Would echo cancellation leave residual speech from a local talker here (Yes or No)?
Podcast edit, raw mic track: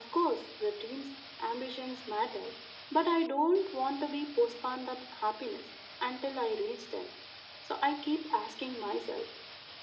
No